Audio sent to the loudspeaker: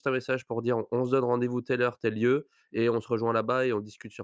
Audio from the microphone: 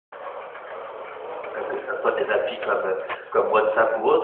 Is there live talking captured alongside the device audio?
Yes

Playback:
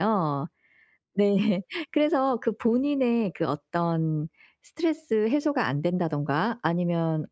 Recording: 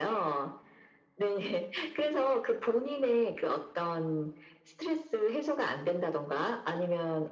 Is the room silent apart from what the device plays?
Yes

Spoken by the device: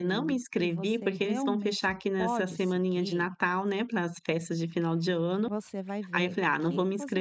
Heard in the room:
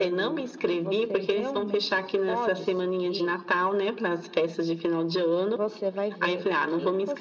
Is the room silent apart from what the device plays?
Yes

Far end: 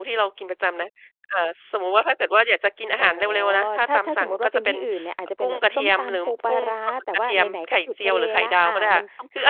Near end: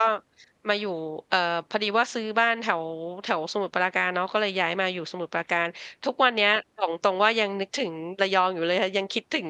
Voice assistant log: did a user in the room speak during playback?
Yes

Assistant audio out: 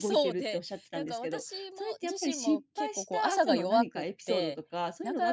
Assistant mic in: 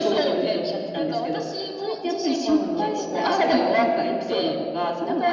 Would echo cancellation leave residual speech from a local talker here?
Yes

